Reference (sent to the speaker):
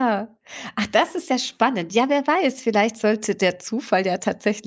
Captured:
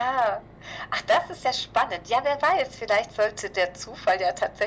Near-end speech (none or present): none